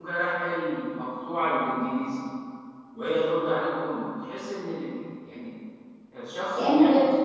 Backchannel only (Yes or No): Yes